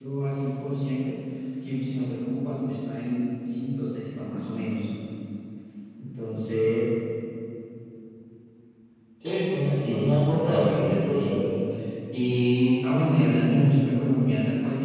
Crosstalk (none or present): present